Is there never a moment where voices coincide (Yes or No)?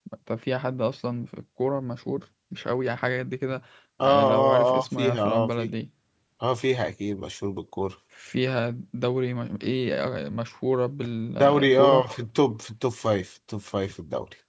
No